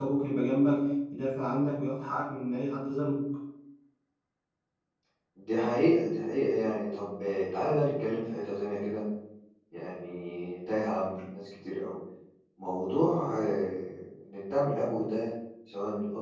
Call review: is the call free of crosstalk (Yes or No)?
Yes